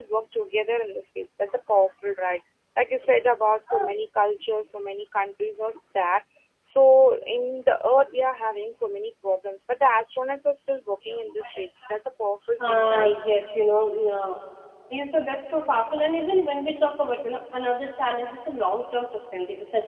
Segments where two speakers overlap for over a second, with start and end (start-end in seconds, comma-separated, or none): none